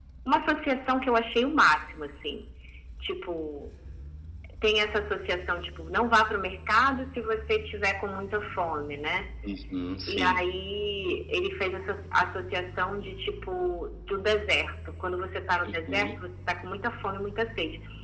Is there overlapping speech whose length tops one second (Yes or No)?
No